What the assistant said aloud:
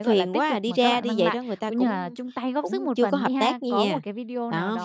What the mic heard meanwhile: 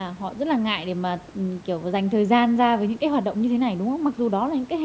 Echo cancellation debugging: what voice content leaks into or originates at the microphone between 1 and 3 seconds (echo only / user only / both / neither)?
user only